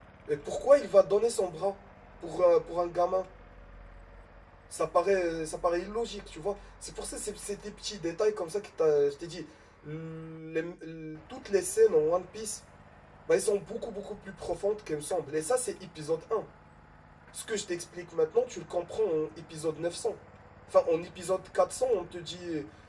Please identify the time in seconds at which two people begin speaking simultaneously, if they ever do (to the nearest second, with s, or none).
none